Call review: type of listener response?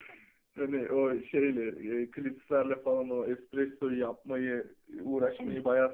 listening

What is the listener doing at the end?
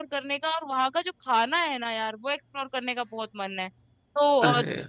listening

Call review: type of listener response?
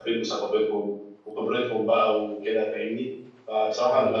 listening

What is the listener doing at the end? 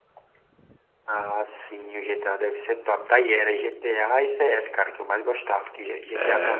listening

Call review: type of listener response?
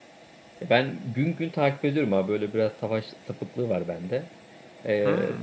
listening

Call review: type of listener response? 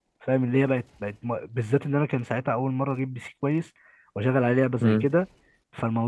listening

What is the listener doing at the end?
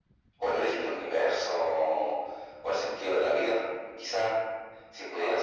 listening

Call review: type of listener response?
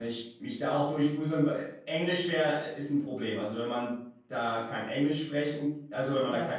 listening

